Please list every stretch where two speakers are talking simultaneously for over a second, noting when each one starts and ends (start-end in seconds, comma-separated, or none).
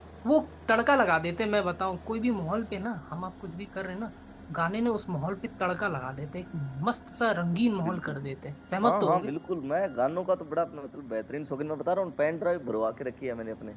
none